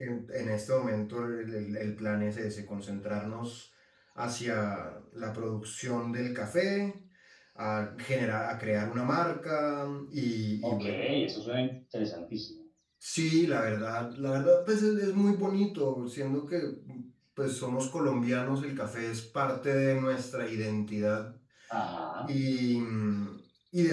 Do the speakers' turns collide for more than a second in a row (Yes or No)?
No